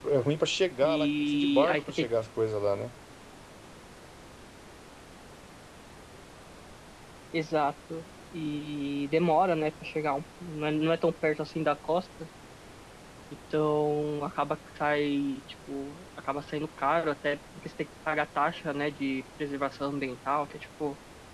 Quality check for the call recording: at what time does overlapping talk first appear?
0.8 s

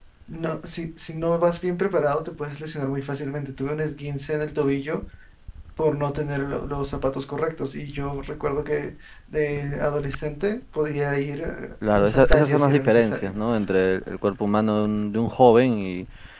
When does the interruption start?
11.8 s

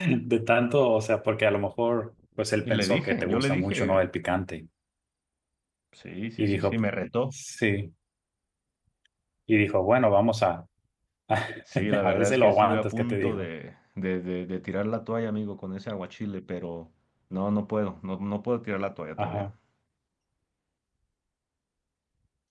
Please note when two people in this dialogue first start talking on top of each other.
2.6 s

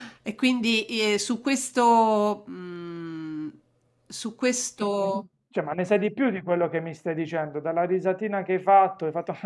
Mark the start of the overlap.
none

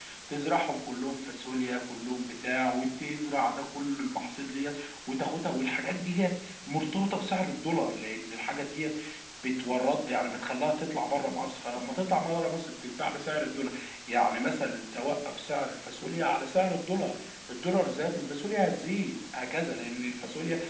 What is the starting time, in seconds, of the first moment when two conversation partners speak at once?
none

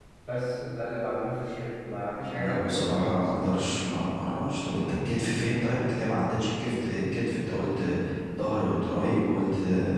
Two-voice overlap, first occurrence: 2.3 s

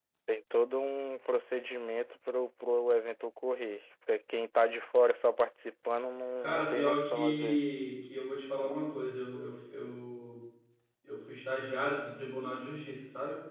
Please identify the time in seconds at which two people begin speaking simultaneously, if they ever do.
6.4 s

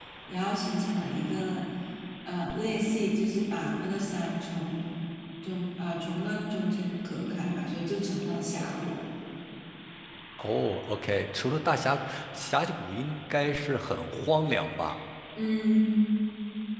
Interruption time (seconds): none

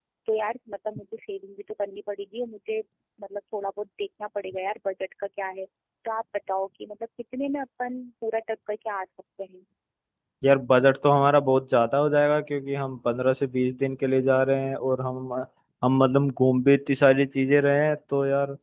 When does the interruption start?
none

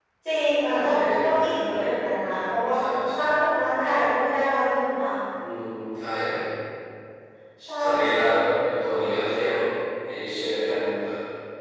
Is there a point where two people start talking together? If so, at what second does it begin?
0.7 s

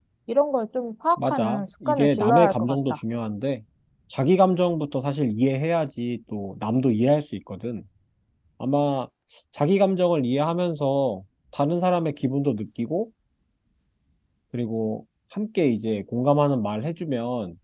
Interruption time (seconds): 1.2 s

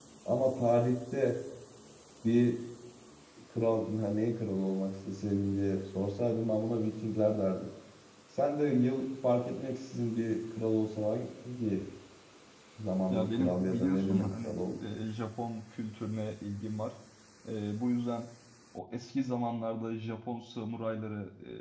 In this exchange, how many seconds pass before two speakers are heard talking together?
13.1 s

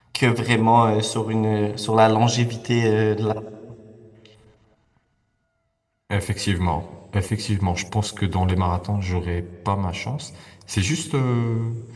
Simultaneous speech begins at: none

